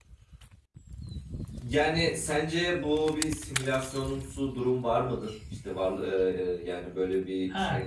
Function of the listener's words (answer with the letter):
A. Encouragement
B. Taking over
B